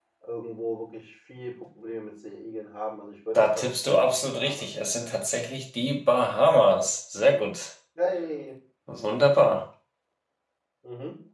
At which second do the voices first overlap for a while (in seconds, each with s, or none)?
3.4 s